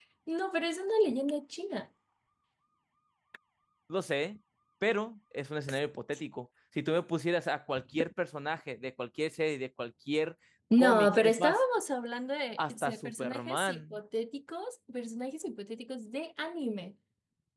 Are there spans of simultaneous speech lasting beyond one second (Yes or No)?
Yes